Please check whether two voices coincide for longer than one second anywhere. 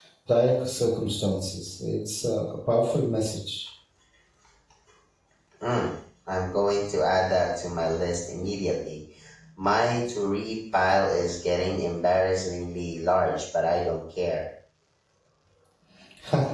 No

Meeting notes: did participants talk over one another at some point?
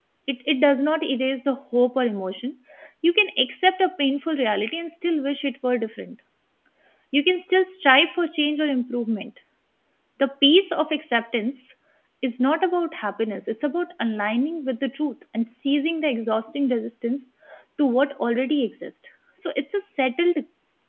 No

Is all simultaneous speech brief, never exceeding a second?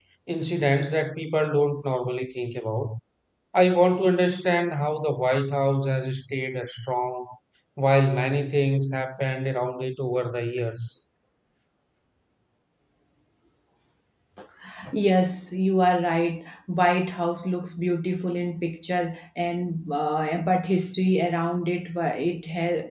Yes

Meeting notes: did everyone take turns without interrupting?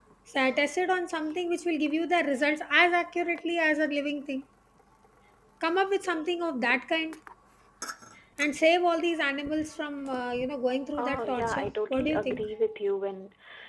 No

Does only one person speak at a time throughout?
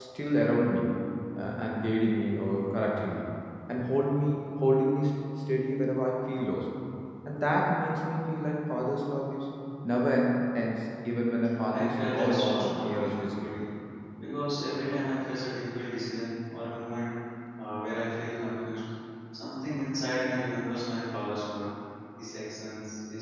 No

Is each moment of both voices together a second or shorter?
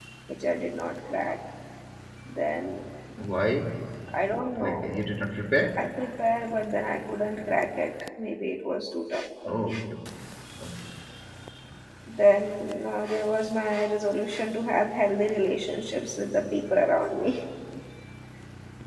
Yes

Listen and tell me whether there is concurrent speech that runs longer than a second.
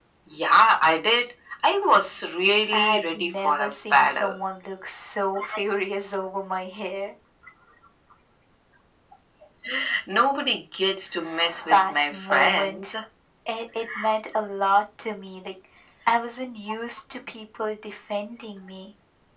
Yes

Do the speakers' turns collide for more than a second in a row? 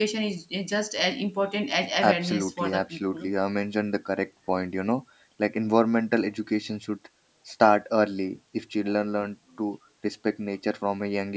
Yes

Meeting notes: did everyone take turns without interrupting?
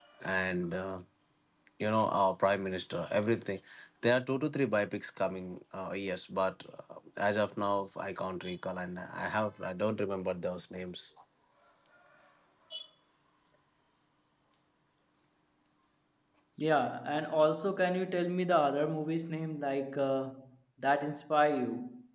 Yes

